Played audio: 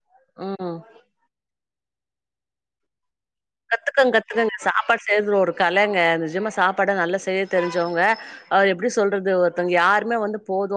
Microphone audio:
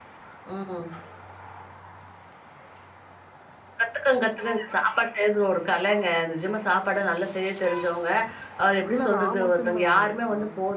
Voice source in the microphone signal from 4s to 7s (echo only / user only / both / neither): echo only